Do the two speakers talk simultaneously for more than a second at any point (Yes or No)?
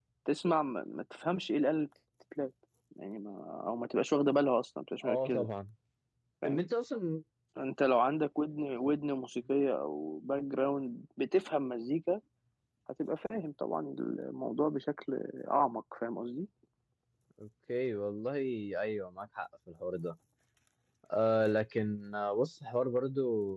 No